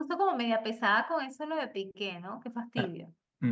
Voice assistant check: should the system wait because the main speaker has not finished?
No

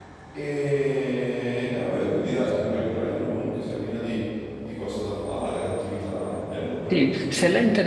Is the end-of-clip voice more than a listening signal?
Yes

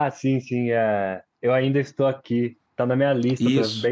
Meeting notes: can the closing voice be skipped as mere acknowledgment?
Yes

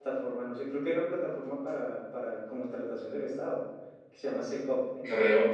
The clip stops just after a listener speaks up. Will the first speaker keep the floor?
Yes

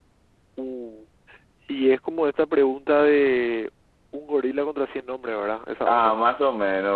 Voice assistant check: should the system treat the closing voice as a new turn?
Yes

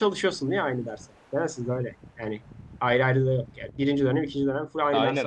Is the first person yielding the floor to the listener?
Yes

